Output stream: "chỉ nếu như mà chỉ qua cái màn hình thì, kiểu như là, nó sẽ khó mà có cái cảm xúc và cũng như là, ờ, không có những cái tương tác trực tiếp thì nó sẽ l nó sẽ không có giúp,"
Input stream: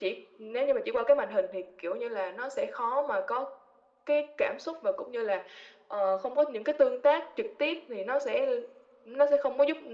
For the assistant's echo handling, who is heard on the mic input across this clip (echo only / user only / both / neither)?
echo only